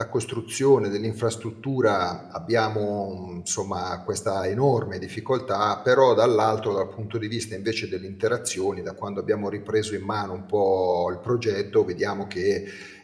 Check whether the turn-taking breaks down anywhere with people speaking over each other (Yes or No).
No